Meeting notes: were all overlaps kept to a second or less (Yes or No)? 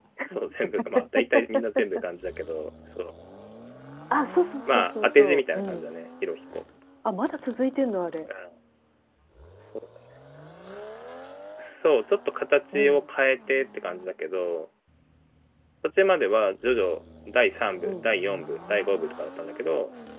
No